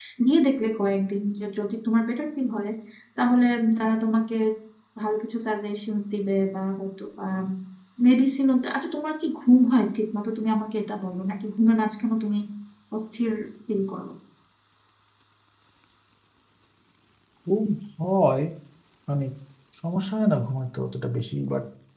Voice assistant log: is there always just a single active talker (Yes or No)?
Yes